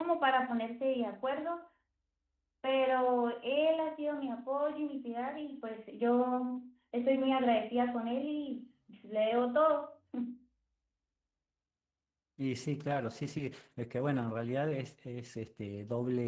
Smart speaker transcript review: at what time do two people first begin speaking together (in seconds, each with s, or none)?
none